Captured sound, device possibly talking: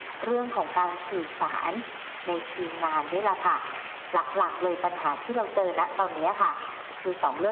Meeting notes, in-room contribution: none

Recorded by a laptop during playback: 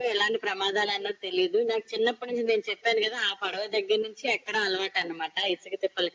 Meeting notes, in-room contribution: none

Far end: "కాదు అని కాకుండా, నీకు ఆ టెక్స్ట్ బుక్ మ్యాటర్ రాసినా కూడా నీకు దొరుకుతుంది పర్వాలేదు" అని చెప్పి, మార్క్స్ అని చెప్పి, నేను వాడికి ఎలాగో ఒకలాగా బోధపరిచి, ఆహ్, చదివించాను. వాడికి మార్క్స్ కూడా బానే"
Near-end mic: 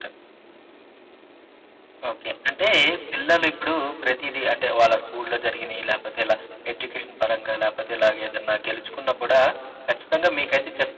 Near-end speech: present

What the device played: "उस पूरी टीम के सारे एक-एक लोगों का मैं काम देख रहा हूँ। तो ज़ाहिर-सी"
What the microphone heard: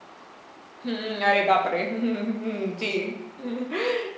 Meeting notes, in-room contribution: present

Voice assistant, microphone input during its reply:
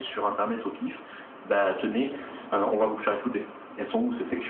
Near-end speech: none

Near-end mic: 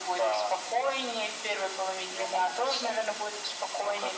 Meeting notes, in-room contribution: none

